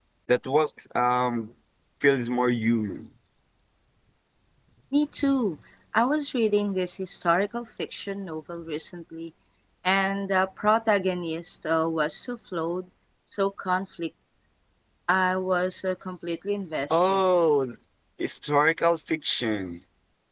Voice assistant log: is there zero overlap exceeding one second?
Yes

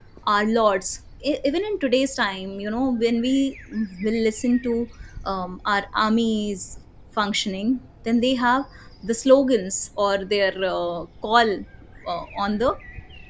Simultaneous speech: No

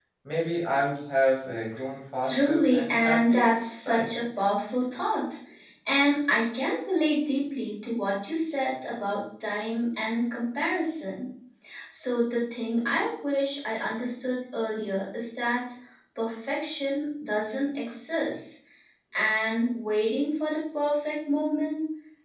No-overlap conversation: No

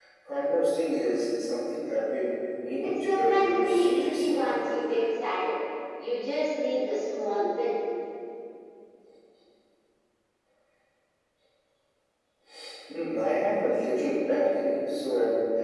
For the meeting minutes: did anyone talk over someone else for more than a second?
Yes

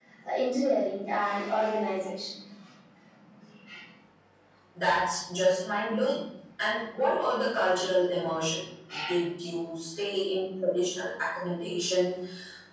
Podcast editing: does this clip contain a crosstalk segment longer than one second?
No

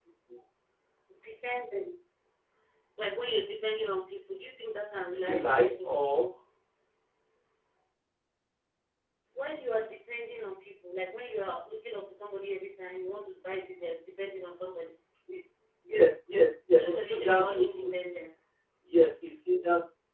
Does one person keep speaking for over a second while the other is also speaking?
Yes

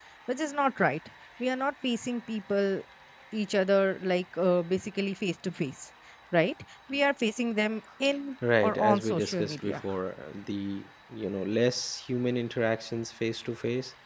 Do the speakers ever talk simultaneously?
Yes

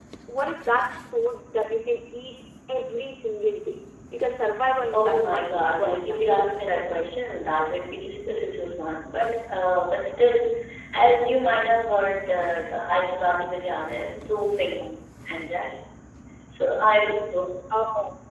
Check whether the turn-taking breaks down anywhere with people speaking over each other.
Yes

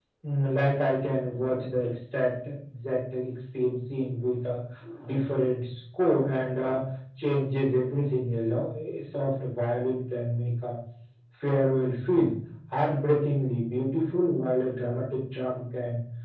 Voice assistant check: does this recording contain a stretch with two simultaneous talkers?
No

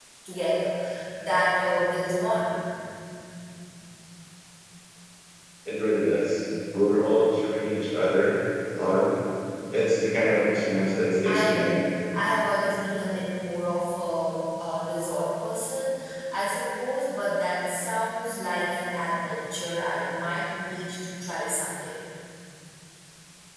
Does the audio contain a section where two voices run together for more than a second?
No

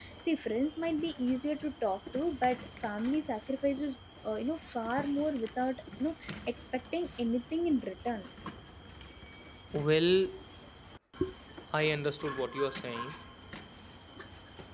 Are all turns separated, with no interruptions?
Yes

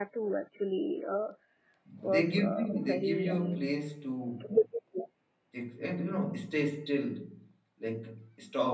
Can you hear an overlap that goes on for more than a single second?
Yes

